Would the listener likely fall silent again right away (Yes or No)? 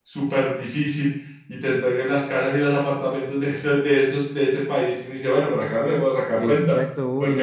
No